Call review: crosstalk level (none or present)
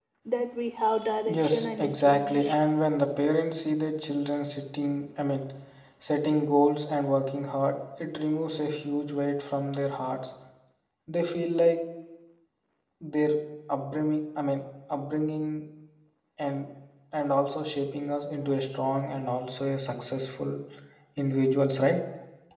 present